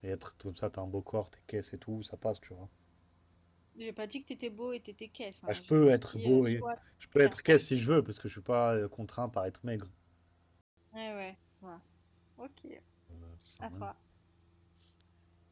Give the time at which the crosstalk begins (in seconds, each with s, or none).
5.5 s